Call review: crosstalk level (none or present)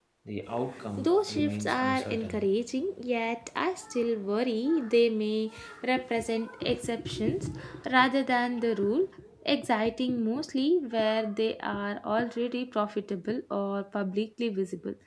present